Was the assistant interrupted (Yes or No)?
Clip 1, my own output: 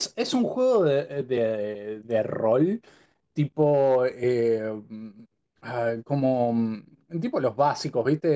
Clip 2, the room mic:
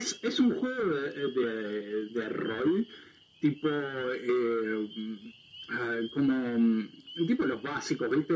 No